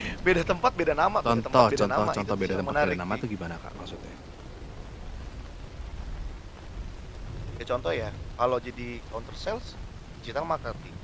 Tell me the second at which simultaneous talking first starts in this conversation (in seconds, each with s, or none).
1.2 s